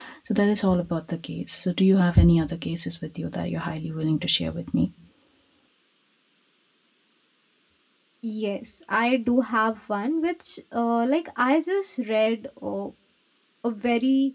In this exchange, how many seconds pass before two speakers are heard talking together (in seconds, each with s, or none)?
none